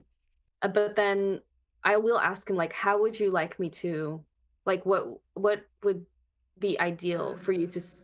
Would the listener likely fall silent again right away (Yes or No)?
Yes